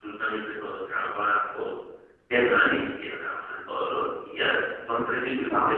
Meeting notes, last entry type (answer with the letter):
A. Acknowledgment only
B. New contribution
A